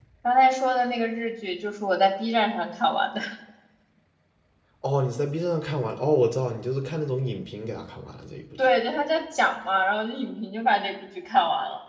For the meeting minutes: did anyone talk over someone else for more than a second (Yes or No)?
No